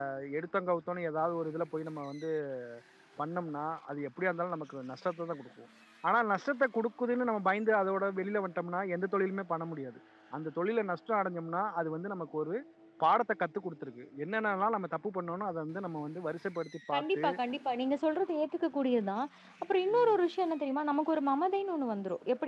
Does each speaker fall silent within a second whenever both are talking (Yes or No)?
Yes